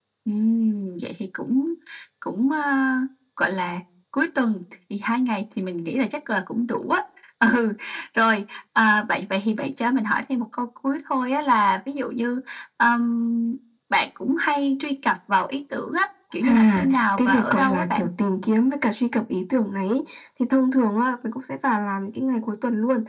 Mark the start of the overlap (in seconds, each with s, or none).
16.4 s